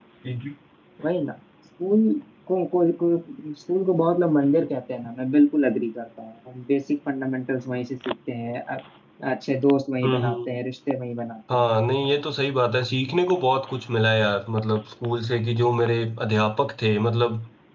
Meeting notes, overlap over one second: none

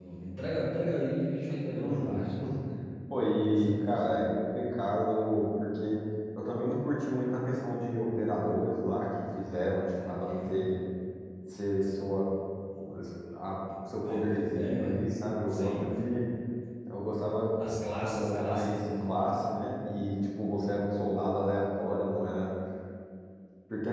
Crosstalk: present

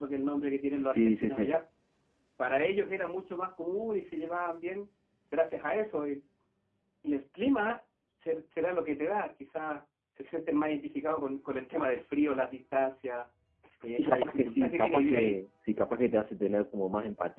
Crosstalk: present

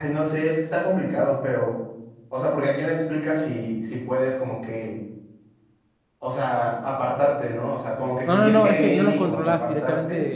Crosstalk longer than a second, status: present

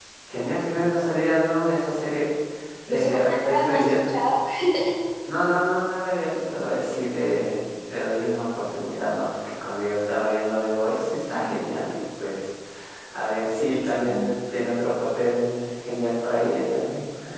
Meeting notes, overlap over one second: present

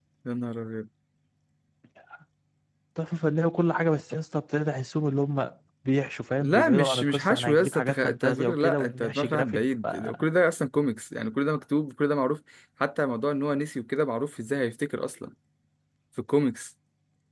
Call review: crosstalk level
present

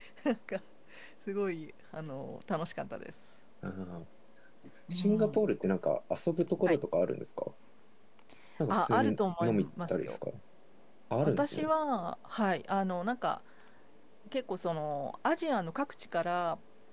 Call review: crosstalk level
present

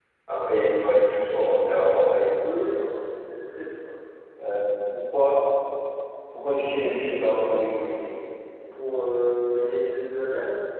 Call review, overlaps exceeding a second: none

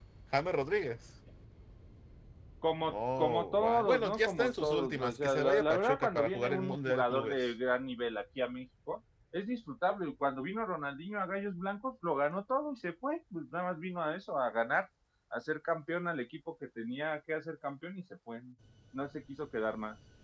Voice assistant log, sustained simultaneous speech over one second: present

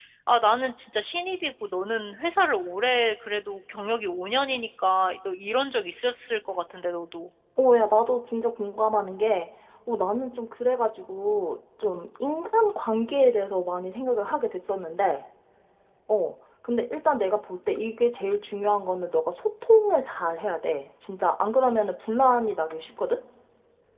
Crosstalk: none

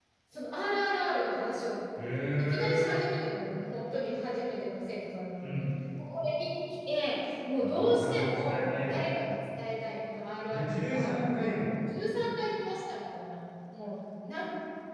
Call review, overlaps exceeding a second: present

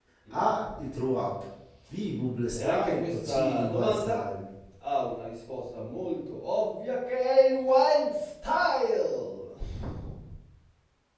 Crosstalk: present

